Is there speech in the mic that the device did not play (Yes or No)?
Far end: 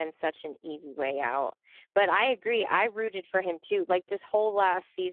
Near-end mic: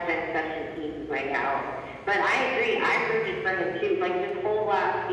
No